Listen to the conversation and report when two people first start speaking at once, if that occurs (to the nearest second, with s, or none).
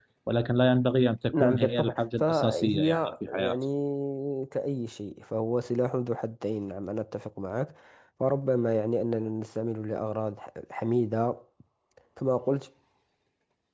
1 s